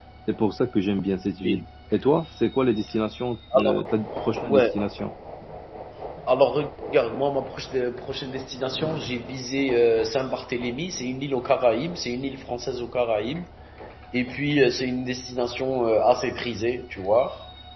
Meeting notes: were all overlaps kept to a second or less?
Yes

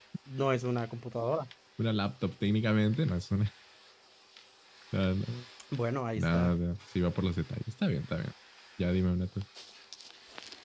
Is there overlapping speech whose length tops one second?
No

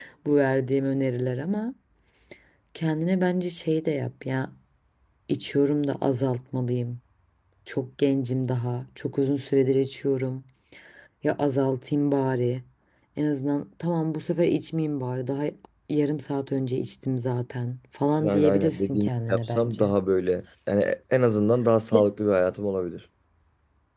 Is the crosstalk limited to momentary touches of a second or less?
No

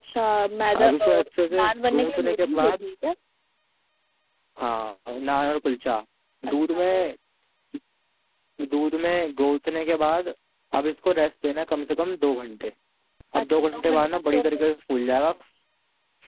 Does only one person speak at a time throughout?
No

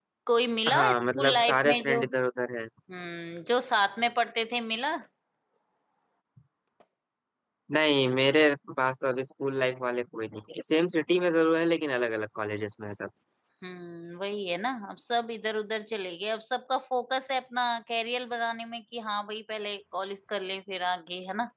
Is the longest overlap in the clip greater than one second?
Yes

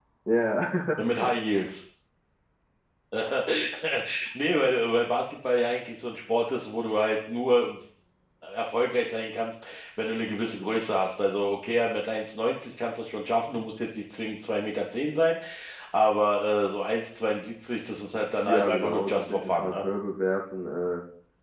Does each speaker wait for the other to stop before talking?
No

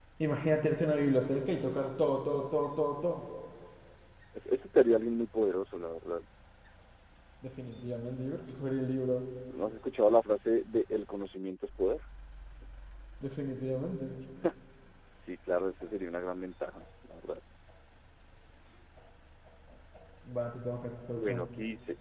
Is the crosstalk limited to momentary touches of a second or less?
Yes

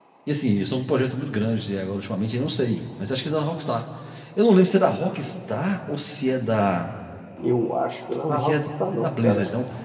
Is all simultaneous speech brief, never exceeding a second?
No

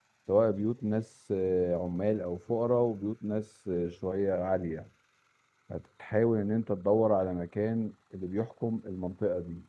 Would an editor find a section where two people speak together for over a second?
No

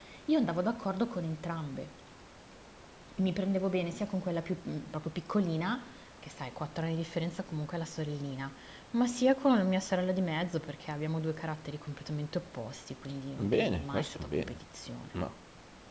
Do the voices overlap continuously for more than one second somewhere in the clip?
Yes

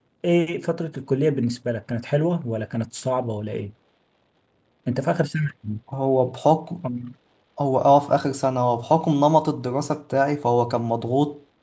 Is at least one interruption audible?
No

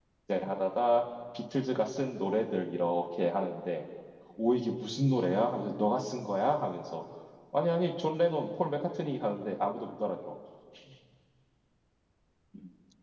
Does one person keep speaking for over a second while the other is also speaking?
No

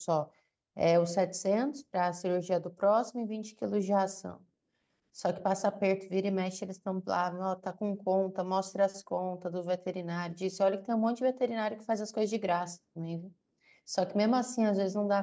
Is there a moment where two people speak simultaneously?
No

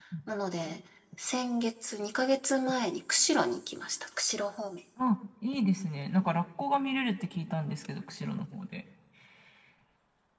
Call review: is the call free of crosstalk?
Yes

